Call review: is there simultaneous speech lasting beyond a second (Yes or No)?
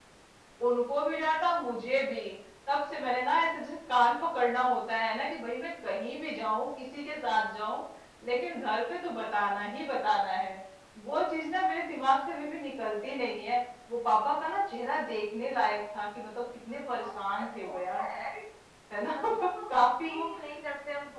Yes